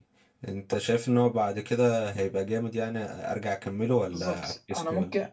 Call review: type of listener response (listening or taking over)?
taking over